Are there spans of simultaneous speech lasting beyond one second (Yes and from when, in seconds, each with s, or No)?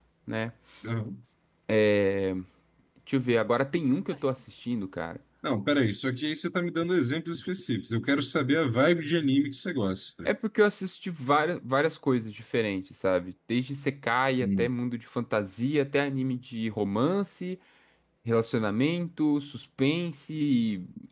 No